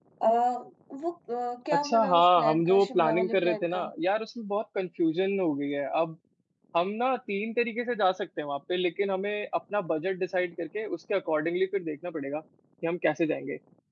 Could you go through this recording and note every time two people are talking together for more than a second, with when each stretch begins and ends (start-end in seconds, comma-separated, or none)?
1.7-3.9